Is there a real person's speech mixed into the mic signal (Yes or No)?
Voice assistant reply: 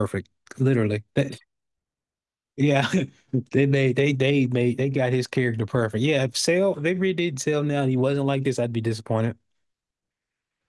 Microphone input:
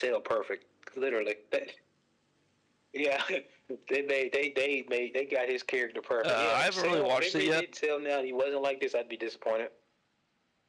Yes